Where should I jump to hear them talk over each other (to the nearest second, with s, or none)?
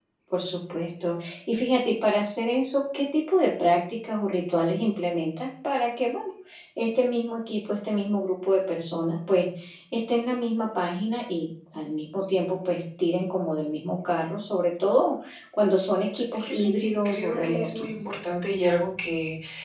16 s